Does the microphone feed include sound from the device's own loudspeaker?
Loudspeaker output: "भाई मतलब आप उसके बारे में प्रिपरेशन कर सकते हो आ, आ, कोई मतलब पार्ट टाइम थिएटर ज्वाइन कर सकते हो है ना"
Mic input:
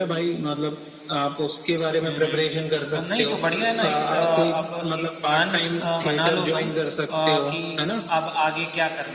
Yes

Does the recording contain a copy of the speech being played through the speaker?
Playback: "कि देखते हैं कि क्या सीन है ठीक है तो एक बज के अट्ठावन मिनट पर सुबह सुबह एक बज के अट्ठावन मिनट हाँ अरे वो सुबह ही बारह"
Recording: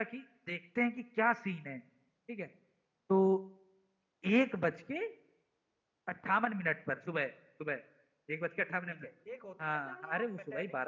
Yes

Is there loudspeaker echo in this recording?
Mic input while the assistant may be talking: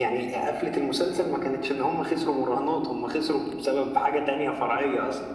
Yes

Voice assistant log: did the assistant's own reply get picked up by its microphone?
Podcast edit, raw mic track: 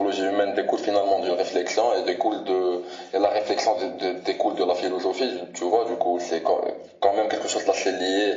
Yes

